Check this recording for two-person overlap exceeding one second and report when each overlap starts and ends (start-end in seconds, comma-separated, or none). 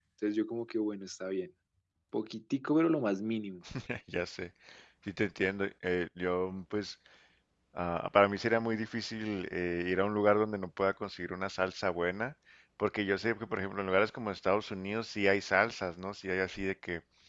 none